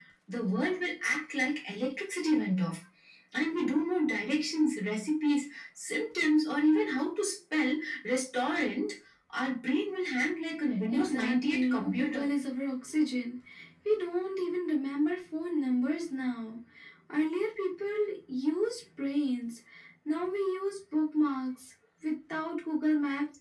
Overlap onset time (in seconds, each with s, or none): 10.9 s